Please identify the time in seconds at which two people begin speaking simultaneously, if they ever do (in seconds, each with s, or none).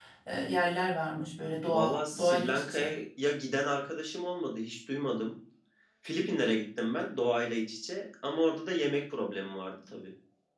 1.7 s